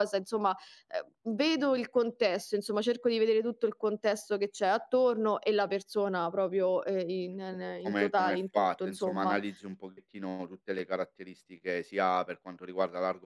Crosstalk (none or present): present